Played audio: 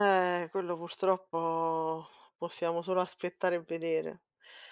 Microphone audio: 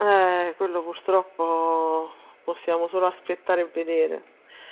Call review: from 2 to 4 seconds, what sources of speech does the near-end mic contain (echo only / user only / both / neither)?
echo only